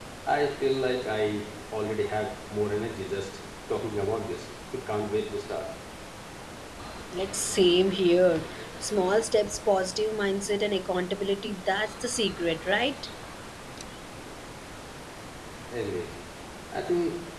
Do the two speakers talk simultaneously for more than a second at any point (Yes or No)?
No